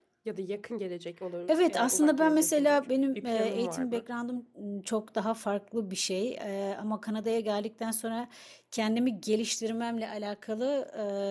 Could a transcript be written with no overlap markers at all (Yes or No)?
No